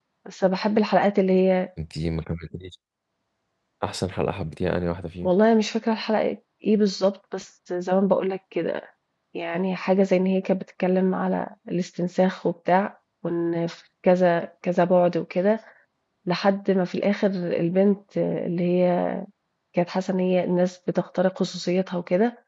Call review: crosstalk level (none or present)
none